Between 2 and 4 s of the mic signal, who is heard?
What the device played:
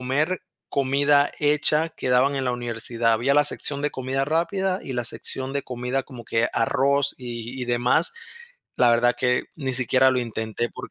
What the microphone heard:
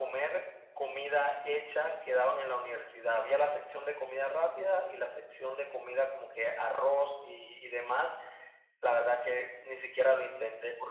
echo only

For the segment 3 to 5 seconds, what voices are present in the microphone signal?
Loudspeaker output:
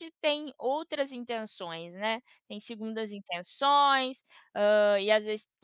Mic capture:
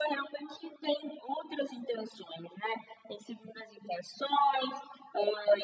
echo only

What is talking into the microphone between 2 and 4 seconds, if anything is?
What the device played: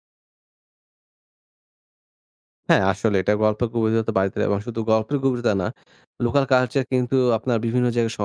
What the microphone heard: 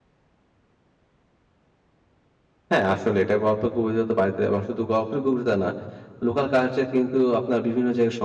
echo only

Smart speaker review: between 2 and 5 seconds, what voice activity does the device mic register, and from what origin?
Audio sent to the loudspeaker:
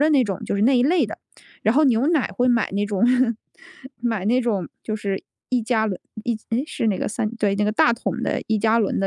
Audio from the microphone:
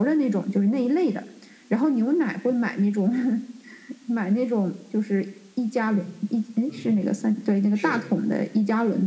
echo only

